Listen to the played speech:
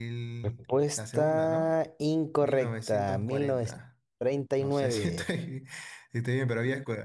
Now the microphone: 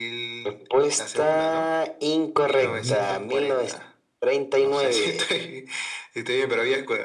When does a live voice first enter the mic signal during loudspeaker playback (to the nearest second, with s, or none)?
3 s